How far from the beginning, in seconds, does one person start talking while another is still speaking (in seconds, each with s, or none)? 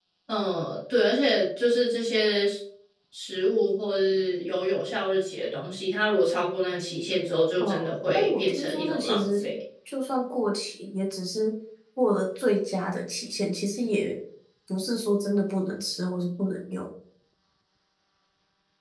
7.6 s